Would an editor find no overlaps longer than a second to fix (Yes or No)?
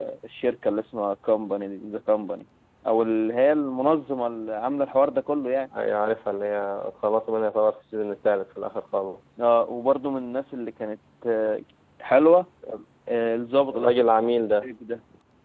Yes